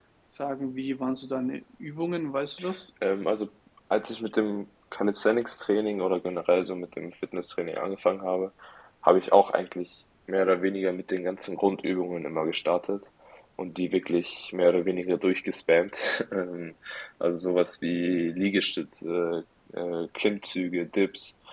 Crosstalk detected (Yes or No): No